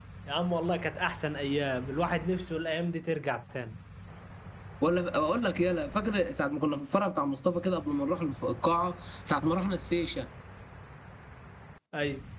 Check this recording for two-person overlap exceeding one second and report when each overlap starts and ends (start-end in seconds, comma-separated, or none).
none